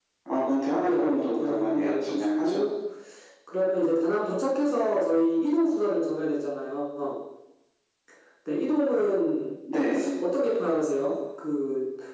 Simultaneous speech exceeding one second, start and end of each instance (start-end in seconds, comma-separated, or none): 0.8-2.6